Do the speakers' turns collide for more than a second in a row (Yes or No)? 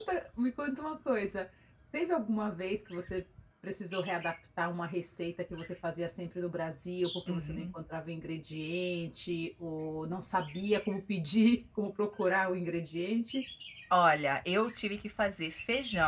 No